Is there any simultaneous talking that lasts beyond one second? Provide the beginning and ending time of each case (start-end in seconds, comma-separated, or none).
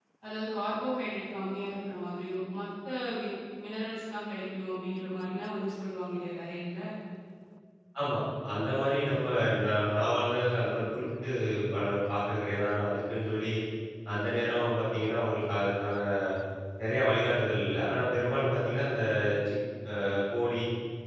none